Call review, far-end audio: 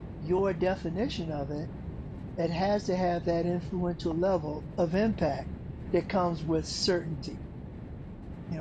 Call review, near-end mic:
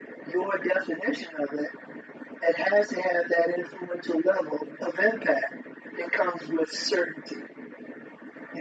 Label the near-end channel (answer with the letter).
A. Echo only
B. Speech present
A